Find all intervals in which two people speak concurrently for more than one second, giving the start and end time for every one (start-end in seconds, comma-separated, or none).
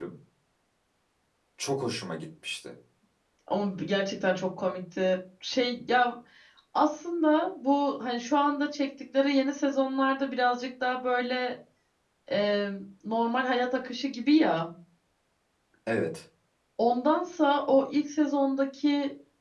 none